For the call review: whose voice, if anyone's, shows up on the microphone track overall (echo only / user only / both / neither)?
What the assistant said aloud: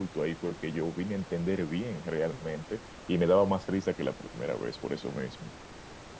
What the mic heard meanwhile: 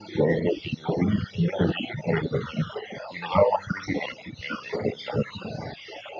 echo only